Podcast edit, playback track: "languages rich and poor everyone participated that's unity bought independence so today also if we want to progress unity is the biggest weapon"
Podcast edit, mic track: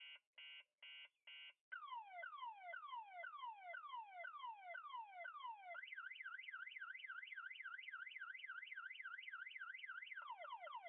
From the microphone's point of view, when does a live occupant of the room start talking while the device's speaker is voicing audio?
none

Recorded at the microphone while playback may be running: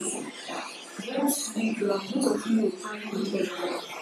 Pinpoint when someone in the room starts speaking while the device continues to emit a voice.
none

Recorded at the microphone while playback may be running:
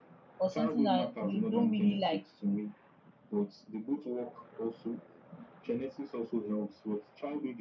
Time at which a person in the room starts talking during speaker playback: 0.4 s

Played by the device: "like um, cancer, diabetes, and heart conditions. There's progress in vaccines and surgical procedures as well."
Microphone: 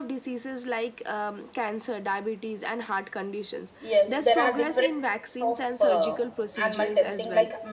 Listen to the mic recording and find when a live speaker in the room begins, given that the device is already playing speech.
3.8 s

